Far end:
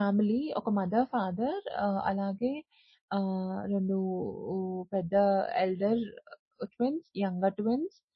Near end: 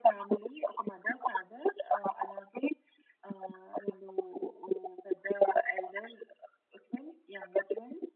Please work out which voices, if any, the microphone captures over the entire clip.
echo only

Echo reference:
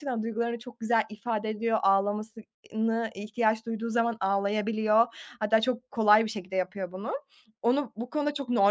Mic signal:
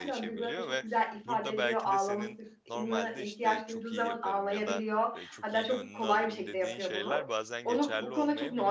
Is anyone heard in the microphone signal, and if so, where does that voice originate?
both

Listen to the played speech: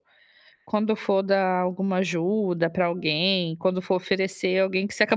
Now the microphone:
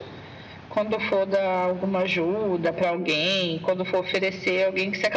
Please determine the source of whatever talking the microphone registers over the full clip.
echo only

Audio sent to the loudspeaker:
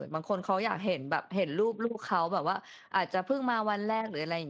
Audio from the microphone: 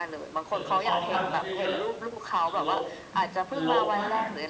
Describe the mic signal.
both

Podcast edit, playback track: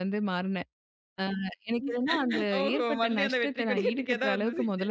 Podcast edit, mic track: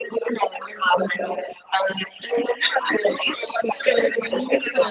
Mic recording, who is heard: both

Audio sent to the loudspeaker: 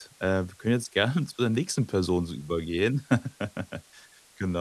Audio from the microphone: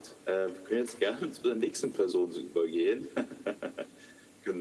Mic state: echo only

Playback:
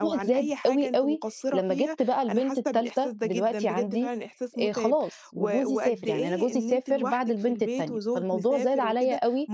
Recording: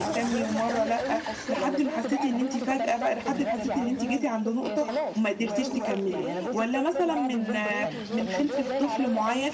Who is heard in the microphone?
both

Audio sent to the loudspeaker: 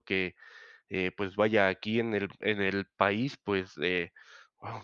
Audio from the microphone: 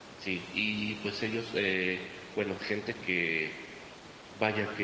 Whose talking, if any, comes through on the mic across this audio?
user only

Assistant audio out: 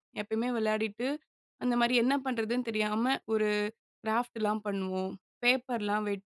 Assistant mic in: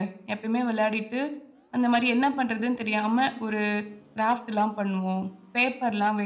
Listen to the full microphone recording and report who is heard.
echo only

